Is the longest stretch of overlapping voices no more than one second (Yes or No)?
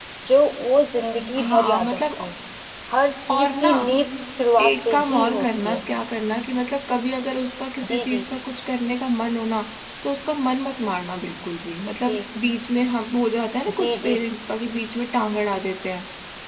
No